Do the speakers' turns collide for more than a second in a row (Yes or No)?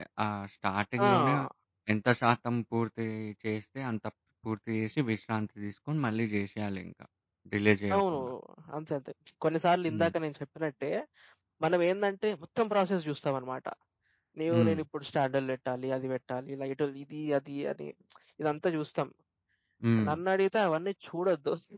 No